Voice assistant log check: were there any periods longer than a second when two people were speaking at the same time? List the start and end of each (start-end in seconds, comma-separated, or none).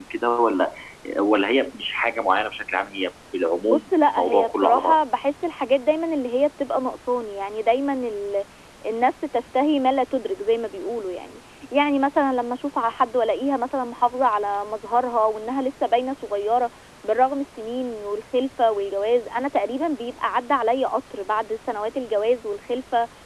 3.7-5.0